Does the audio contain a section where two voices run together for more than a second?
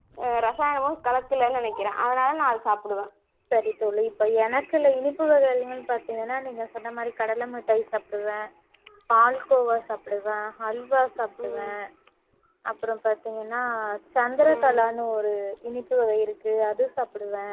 No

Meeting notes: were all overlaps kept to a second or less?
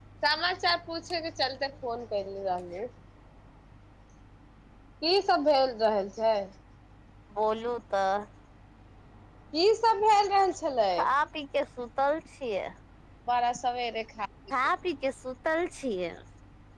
Yes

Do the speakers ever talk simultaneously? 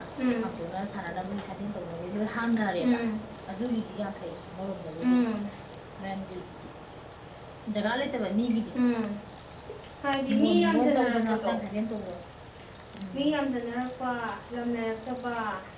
Yes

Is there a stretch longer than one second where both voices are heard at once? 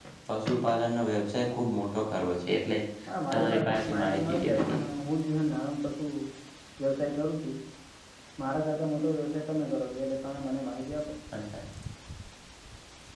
Yes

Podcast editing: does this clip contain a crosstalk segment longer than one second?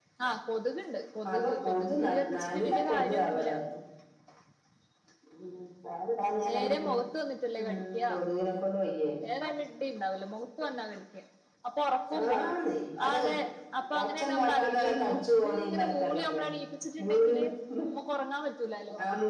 Yes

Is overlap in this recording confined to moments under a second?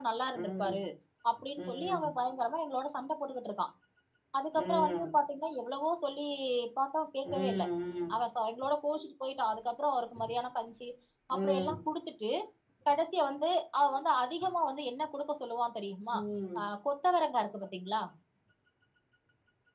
Yes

